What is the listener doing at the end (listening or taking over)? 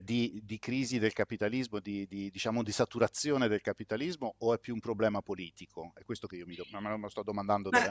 taking over